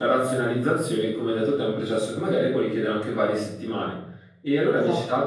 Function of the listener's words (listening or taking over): listening